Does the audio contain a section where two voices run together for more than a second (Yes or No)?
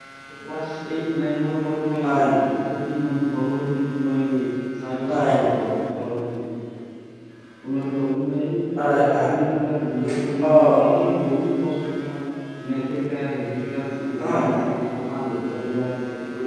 No